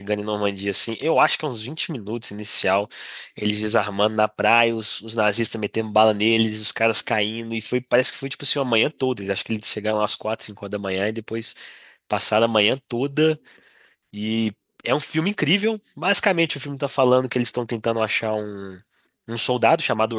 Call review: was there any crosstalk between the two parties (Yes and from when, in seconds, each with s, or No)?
No